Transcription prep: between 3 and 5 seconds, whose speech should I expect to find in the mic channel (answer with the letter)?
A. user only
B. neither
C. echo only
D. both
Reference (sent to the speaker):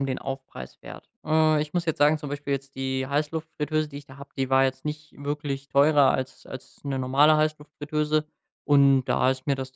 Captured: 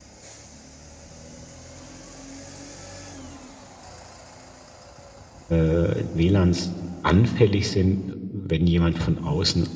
B